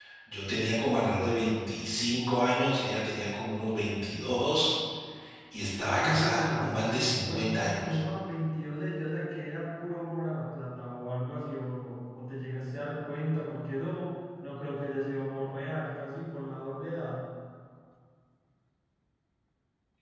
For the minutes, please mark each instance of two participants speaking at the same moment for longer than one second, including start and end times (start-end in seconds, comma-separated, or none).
6.0-8.0